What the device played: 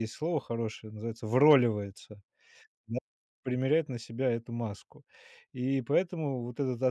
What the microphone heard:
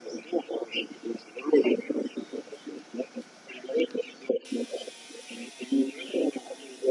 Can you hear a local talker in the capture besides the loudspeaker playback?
No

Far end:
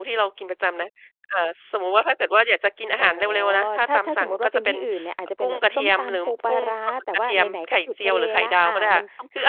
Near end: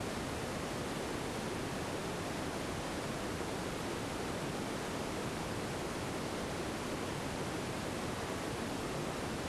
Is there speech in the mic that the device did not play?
No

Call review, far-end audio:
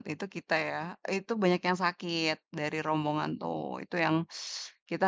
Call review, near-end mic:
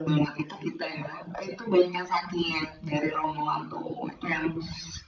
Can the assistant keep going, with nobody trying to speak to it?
Yes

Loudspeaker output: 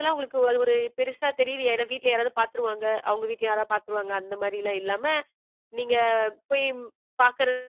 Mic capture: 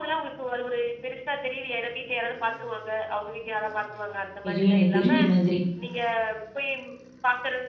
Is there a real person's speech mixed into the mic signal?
Yes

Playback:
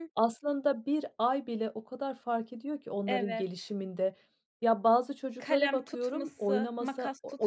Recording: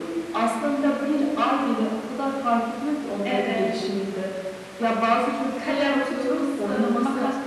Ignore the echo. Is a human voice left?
No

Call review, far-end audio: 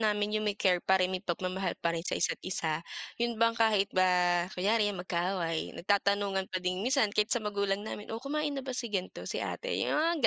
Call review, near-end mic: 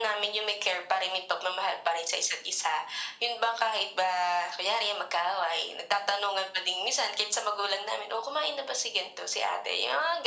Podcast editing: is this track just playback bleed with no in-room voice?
Yes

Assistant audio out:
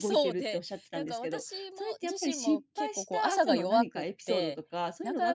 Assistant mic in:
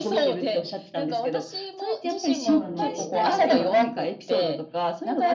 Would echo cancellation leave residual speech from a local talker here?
Yes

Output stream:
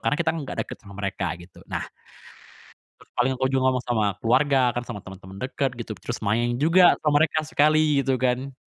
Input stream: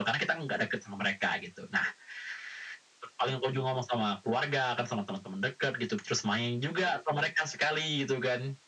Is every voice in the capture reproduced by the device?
Yes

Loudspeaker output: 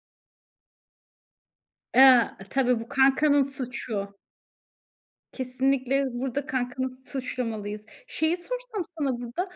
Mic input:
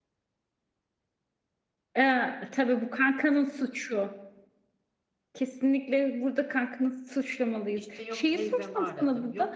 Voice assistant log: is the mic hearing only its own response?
No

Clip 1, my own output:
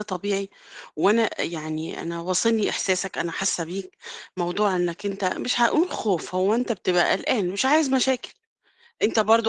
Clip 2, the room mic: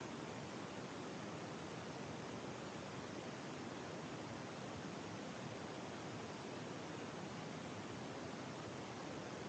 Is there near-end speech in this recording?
No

